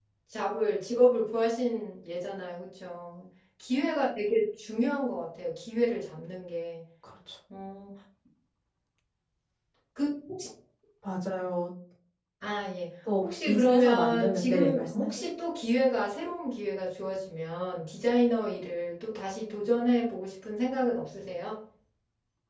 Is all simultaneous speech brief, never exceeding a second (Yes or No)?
No